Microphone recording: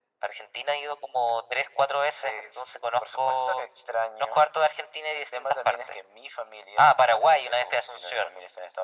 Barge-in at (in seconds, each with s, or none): none